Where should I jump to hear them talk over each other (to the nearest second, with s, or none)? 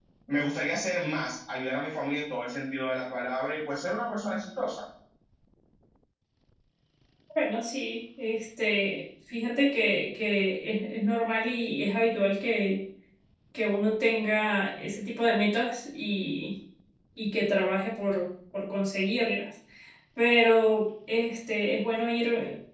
none